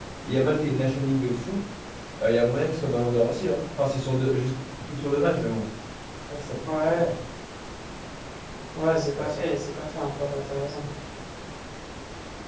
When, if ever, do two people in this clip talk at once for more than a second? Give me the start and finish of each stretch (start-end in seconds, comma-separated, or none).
none